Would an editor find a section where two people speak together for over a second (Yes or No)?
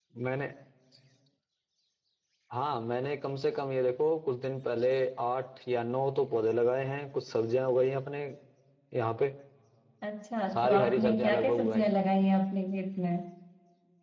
Yes